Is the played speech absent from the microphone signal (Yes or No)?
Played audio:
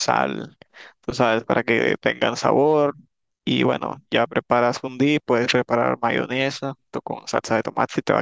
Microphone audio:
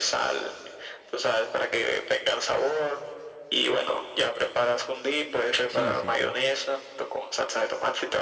No